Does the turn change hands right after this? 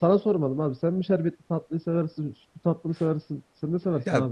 Yes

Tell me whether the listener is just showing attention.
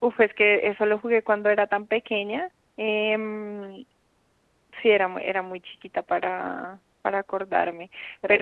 Yes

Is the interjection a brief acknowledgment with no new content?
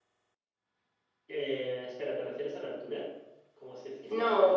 No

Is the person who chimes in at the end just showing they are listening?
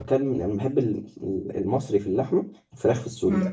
No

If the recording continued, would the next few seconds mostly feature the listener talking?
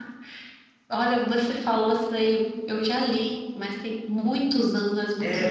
Yes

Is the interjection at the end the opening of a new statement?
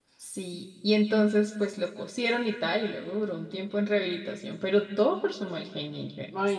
Yes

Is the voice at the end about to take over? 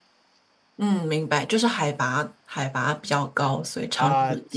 Yes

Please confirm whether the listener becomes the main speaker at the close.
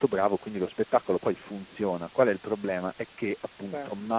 No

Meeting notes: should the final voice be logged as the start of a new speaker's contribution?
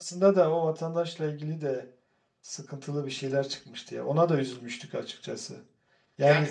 No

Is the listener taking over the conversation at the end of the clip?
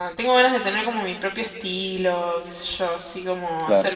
No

